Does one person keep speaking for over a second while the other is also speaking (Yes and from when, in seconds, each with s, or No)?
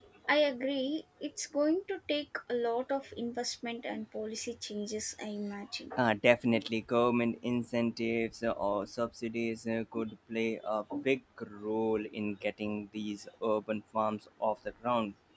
No